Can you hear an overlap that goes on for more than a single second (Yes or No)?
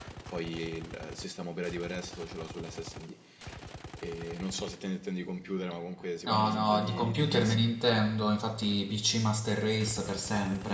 Yes